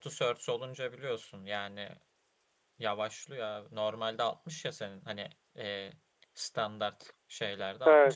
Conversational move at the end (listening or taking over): listening